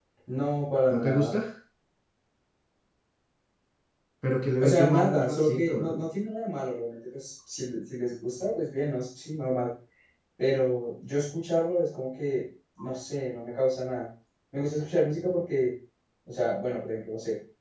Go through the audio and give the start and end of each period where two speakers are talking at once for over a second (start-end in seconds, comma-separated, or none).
4.6-5.9